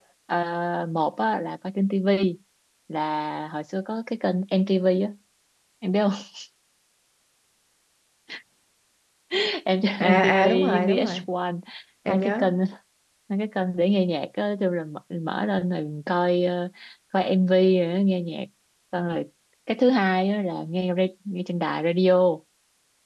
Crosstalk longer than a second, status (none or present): present